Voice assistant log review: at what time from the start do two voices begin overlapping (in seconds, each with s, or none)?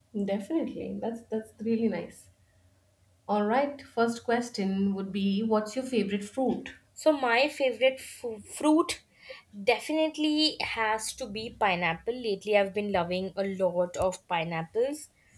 none